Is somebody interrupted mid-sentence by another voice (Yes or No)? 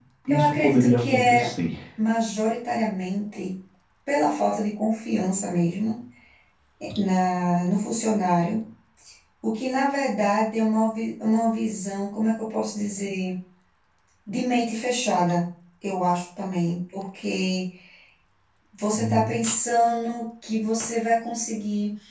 Yes